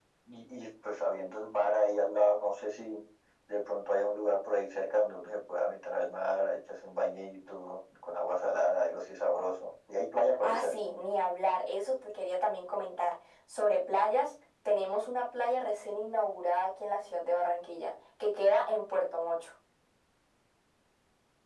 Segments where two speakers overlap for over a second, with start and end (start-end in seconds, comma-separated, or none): none